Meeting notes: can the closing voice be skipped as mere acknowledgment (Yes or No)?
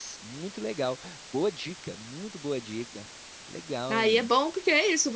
No